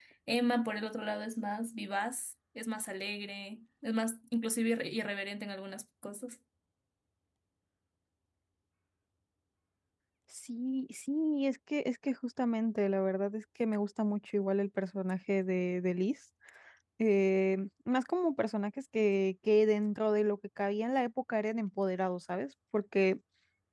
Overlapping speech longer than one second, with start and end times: none

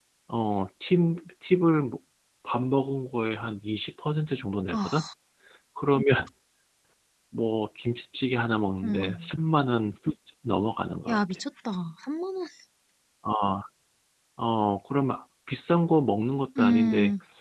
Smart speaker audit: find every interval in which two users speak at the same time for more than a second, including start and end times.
none

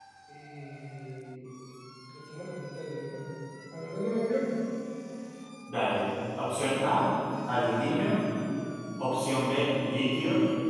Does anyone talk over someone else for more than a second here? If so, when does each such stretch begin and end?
none

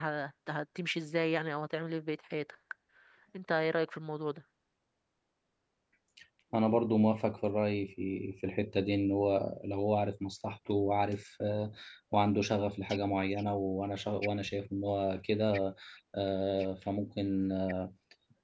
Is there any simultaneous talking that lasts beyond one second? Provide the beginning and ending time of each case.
none

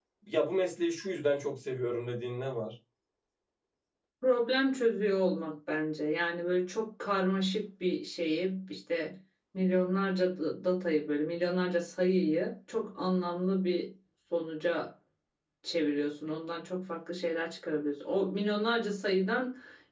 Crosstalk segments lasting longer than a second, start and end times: none

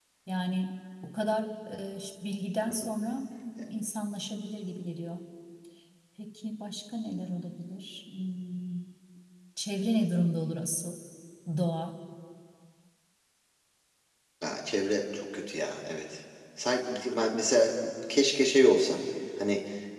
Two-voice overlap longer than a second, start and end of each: none

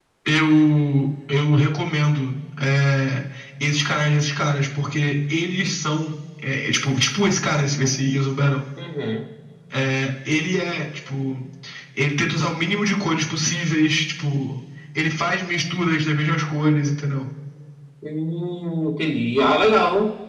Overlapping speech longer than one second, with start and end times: none

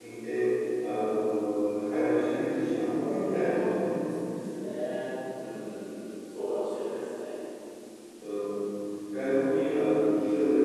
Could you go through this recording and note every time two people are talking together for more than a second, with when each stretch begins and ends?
none

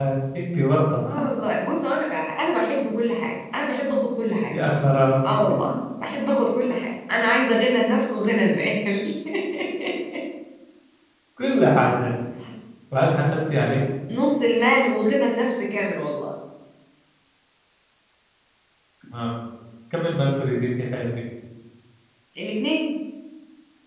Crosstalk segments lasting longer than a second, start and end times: none

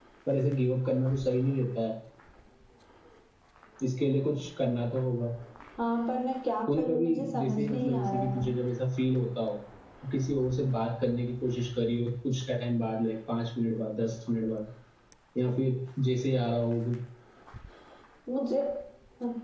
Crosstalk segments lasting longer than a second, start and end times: 6.7-8.4

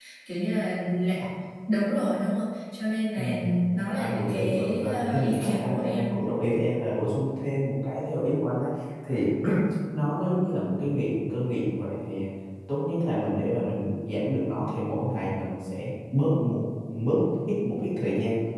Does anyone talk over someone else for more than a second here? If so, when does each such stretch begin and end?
4.0-6.1

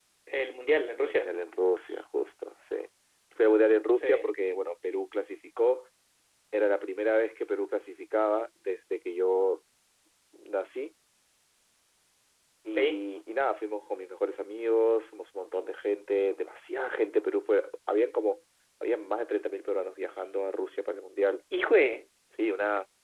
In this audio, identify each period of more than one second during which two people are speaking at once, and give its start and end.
none

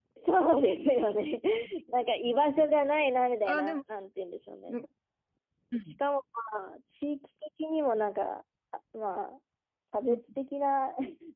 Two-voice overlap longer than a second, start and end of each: none

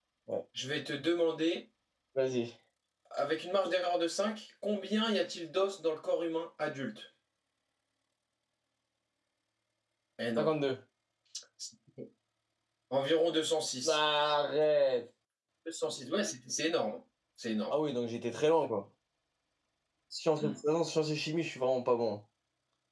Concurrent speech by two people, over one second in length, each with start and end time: none

